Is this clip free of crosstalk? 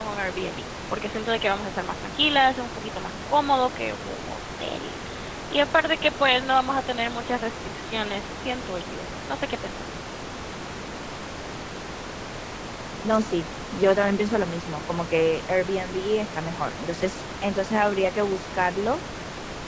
Yes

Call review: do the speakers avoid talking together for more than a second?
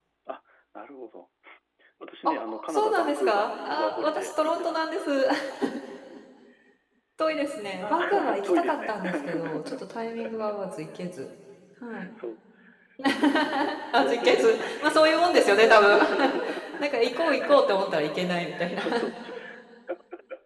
No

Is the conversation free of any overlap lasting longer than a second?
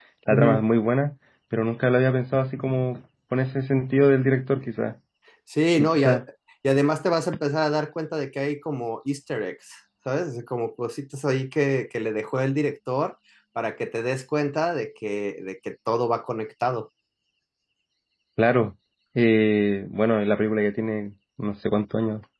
Yes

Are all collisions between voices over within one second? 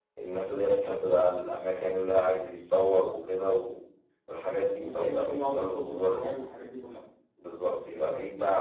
No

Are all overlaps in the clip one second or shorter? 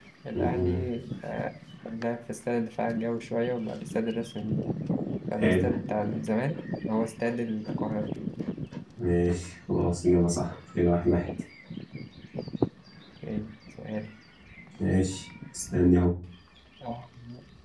Yes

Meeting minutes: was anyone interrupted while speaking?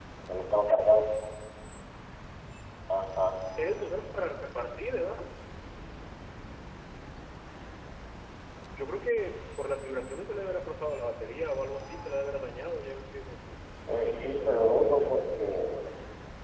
Yes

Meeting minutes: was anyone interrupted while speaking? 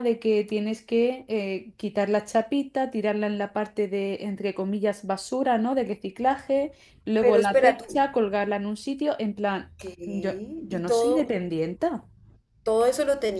Yes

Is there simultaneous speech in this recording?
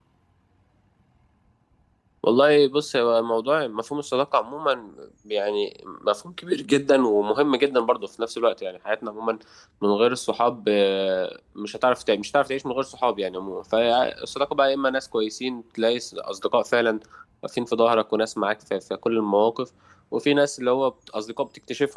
No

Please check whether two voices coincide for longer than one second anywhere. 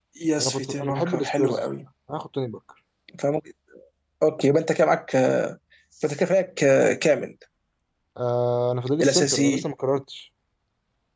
Yes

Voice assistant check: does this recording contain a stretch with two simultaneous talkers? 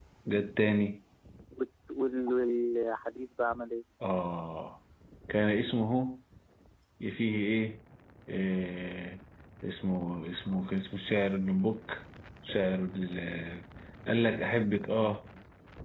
No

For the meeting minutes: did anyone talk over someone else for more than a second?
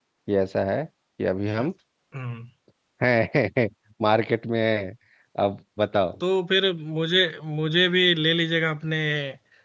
No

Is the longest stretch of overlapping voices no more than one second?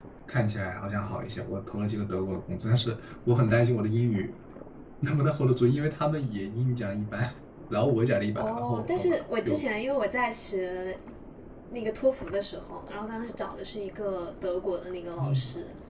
No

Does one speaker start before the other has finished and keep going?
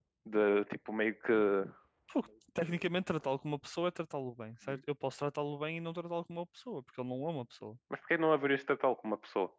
No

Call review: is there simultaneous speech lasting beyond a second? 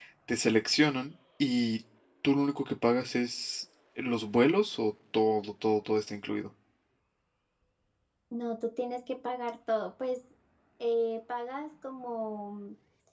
No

